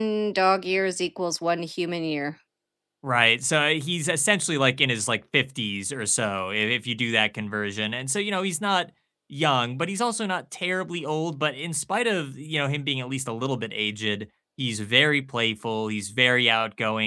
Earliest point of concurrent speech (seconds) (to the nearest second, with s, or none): none